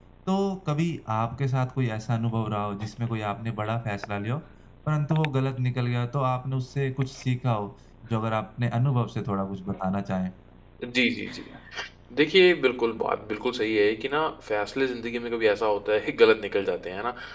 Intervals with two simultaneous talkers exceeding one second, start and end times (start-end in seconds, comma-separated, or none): none